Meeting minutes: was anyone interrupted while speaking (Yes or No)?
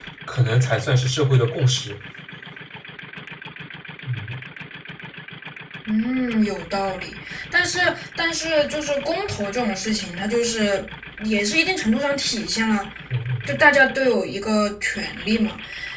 No